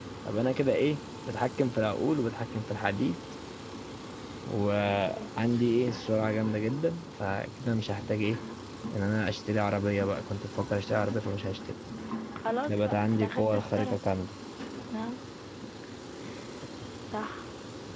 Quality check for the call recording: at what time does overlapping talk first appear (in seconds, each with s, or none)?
12.7 s